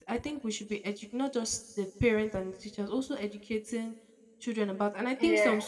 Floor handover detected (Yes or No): No